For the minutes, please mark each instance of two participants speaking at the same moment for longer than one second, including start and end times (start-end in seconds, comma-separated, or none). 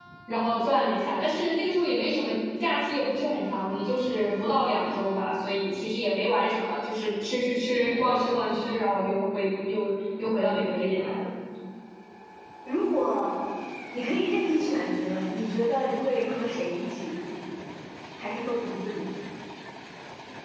none